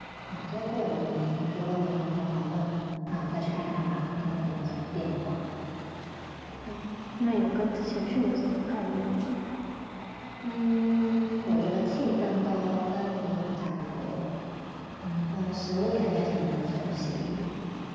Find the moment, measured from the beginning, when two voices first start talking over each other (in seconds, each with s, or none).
none